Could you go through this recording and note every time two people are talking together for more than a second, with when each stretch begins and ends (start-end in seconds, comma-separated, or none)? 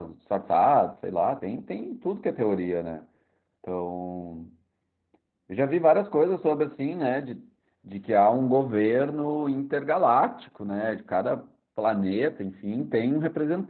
none